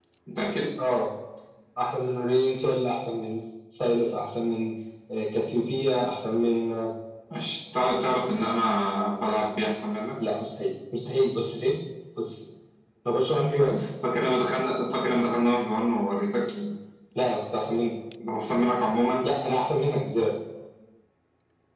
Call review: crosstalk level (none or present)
none